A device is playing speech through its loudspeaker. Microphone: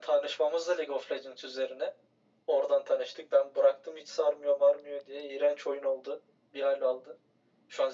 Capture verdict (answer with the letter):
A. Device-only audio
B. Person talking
A